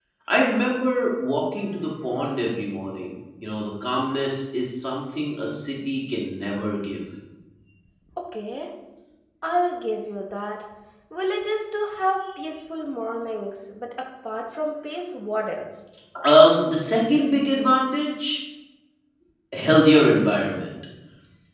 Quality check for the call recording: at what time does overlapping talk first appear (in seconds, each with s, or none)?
none